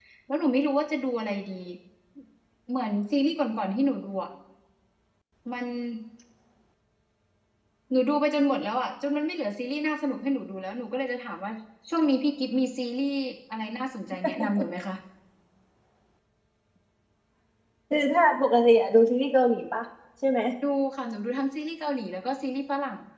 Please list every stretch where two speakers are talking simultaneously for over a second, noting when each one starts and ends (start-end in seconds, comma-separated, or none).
none